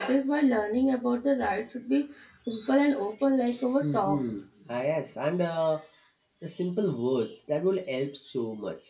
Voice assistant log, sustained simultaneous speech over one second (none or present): none